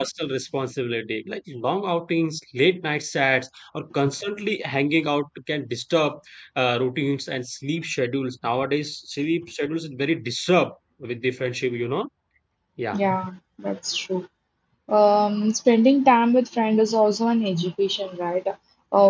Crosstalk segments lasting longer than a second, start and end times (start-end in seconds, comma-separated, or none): none